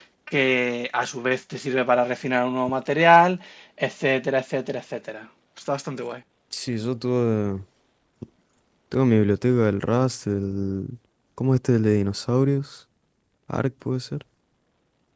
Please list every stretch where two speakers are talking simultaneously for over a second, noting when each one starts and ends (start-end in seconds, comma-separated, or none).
none